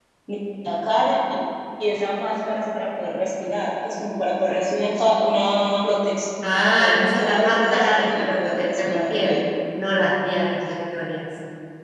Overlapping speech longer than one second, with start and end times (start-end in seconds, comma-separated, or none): 7.0-9.4